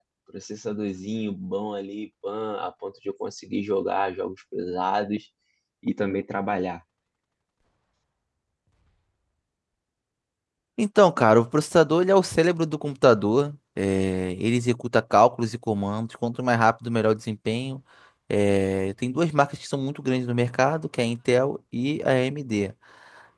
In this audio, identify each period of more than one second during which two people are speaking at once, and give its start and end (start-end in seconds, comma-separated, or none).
none